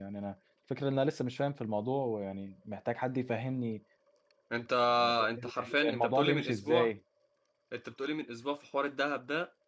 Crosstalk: present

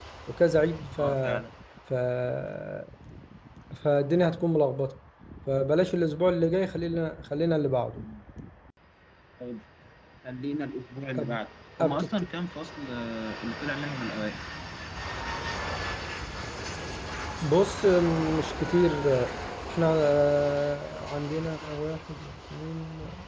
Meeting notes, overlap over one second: none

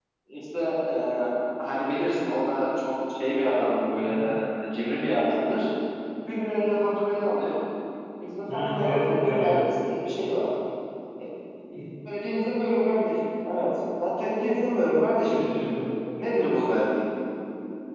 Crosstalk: present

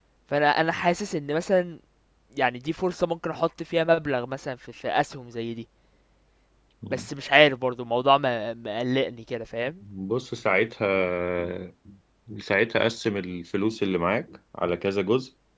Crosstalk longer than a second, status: none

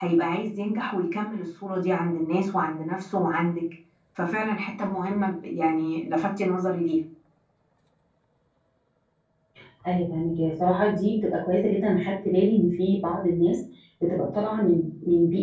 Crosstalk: none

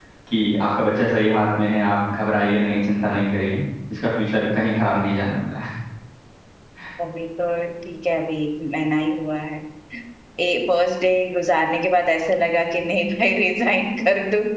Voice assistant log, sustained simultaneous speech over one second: none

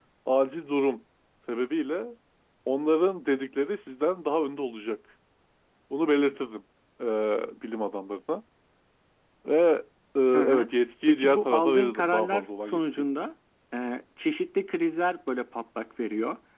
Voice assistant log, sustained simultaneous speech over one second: present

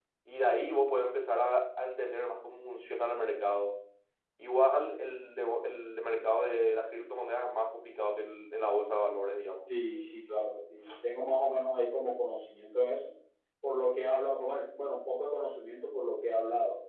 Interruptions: none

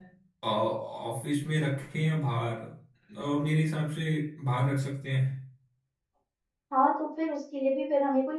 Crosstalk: none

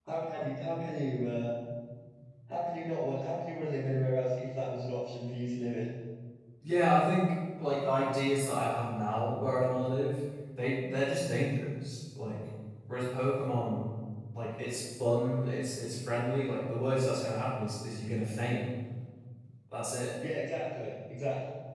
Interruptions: none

